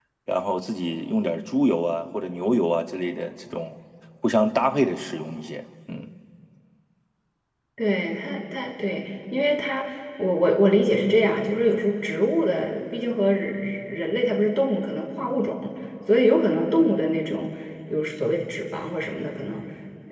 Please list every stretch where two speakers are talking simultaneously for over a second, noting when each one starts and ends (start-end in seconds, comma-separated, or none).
none